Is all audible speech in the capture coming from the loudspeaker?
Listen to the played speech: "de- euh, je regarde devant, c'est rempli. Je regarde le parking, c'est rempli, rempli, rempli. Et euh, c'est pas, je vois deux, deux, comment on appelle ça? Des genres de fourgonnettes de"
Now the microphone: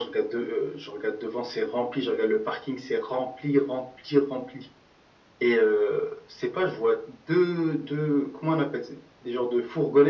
Yes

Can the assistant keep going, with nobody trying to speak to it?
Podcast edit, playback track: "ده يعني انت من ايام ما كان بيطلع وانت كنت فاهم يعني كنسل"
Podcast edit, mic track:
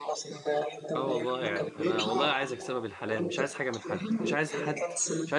No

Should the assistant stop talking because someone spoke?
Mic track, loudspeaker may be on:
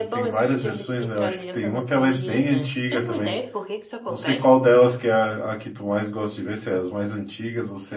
Yes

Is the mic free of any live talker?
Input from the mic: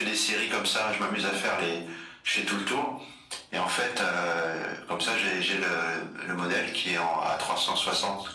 Yes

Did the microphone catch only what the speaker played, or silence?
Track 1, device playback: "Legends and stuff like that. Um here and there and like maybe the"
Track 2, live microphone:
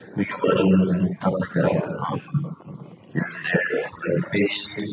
Yes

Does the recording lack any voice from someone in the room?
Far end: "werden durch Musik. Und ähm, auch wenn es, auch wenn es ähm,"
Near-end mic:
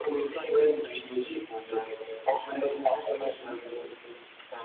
Yes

